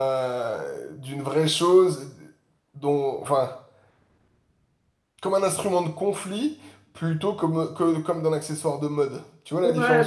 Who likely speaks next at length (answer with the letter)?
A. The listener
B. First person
A